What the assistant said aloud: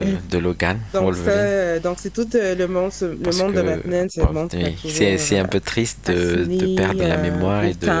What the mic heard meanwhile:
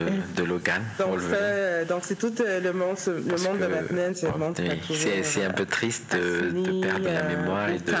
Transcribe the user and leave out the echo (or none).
none